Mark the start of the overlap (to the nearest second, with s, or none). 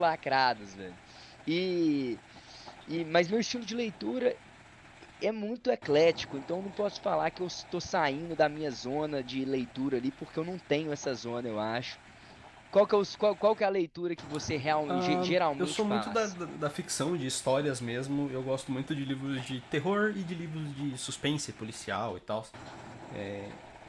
15 s